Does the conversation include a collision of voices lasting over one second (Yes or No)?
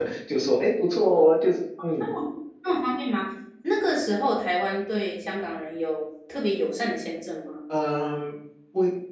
No